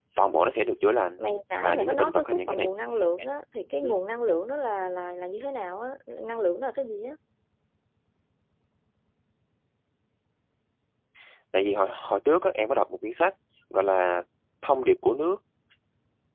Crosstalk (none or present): present